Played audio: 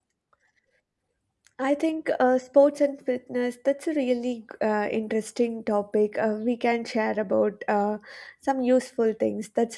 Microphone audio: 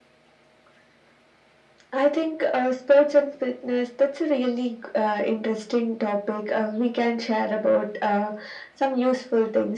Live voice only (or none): none